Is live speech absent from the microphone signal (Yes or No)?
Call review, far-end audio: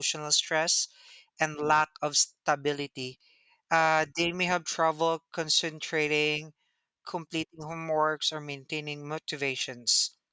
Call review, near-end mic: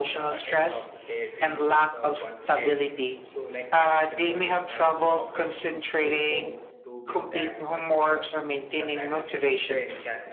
No